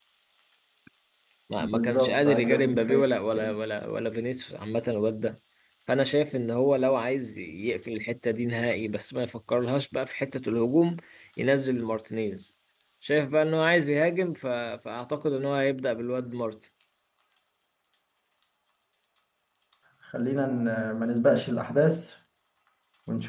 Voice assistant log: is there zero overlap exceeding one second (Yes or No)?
No